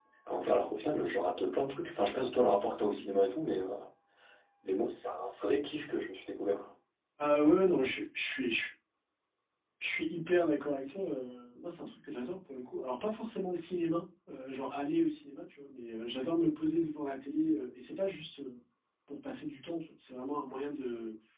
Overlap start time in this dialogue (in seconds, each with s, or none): none